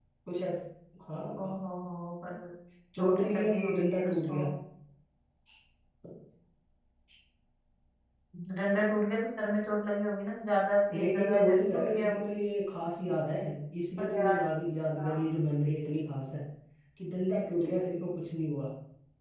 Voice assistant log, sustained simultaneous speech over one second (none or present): present